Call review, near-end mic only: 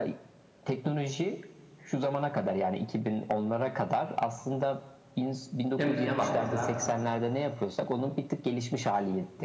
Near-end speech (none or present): present